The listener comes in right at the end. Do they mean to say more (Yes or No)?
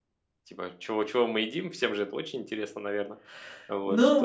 Yes